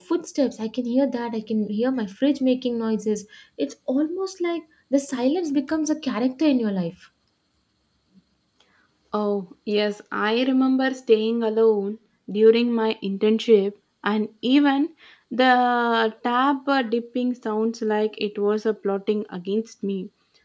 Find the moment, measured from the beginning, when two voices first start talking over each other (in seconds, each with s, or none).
none